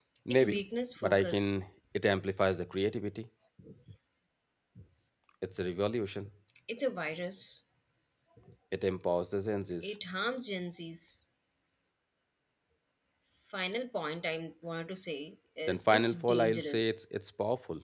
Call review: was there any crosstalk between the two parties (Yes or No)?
Yes